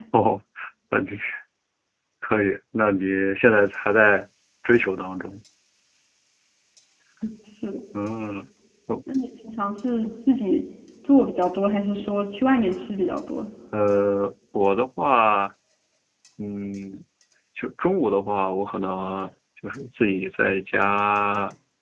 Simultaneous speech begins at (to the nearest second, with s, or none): none